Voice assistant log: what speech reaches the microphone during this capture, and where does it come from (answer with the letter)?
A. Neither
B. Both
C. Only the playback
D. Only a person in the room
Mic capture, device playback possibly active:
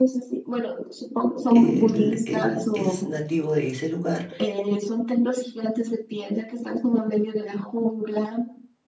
B